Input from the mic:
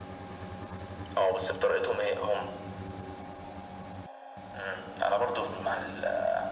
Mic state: echo only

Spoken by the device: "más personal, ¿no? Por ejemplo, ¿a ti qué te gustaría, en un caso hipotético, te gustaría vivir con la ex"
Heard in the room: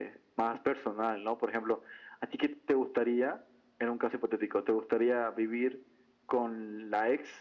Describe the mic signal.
echo only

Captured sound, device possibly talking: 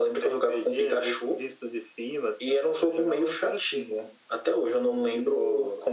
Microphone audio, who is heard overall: echo only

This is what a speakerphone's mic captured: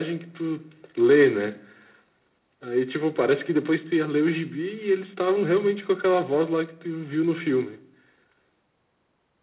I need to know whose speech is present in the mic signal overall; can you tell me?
echo only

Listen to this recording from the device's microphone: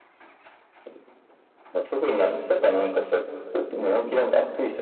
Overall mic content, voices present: echo only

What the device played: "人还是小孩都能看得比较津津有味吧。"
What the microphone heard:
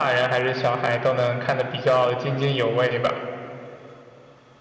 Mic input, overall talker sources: echo only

